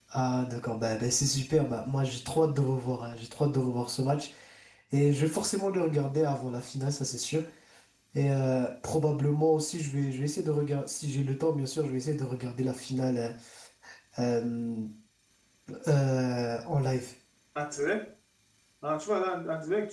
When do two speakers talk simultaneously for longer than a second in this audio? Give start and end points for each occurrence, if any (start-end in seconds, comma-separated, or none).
none